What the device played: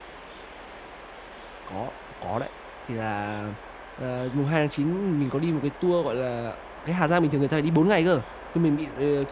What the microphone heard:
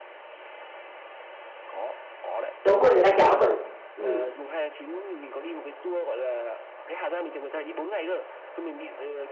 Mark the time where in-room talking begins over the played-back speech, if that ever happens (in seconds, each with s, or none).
2.6 s